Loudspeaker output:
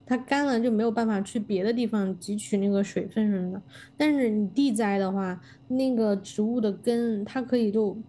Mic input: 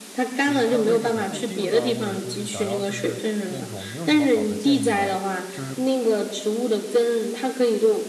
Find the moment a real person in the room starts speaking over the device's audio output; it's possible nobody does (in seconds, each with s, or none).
0.4 s